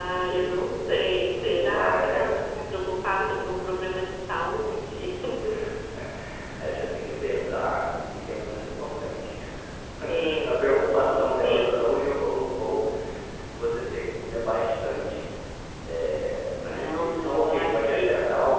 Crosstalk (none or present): present